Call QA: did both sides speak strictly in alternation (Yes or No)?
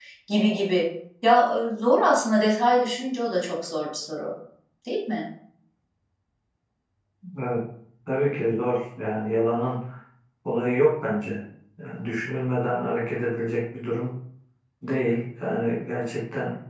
Yes